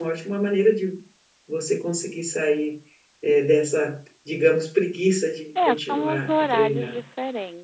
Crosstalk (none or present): present